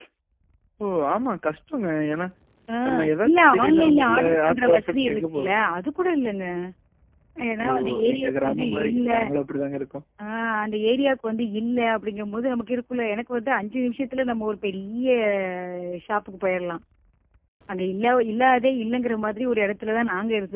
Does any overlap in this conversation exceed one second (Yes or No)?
Yes